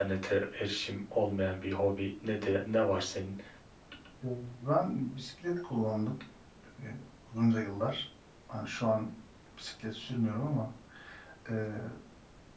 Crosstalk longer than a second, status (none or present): none